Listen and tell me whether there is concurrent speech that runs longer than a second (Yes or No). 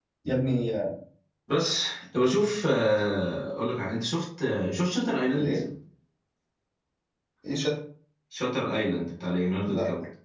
No